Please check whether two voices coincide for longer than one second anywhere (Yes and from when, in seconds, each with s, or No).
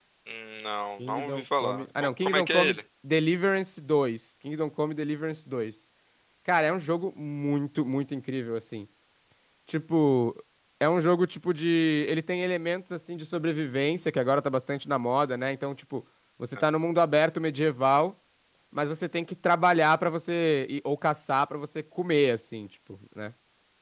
Yes, from 1.1 s